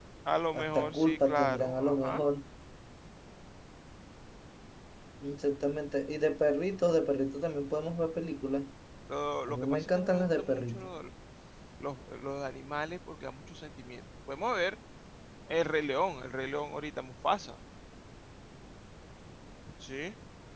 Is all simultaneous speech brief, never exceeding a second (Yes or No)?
No